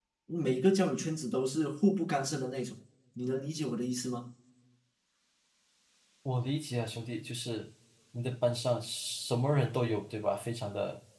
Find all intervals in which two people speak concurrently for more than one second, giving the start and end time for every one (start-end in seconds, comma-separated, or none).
none